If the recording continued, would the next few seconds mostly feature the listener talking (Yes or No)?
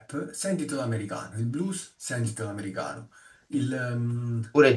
Yes